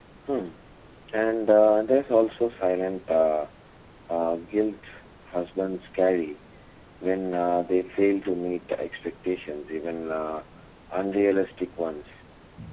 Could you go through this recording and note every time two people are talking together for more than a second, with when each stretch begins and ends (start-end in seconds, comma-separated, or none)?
none